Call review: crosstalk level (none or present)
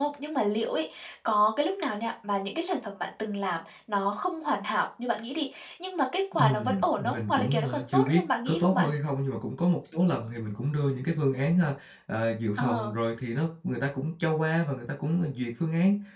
present